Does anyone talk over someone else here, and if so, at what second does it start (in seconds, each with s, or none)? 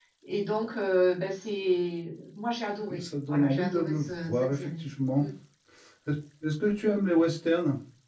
2.9 s